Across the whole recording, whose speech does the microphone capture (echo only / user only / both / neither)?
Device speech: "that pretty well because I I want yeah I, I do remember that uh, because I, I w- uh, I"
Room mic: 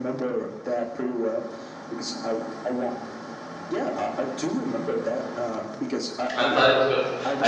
both